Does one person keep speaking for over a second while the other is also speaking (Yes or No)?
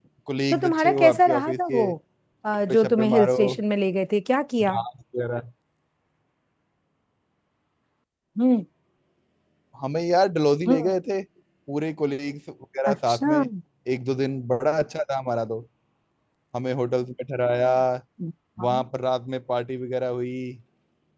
Yes